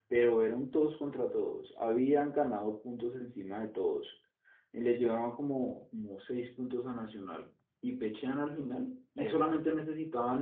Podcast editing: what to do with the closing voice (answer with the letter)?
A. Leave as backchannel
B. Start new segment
A